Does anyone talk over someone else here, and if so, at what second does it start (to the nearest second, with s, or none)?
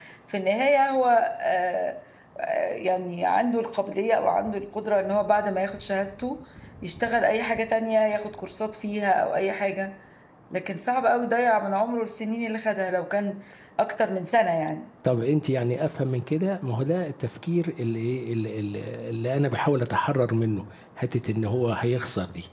none